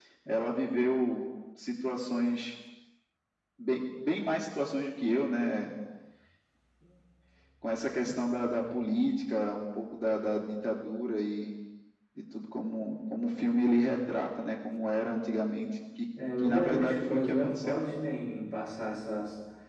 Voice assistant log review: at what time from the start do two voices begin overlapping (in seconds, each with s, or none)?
16.2 s